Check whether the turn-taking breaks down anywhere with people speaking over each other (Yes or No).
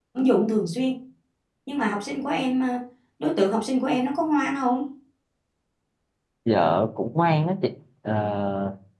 No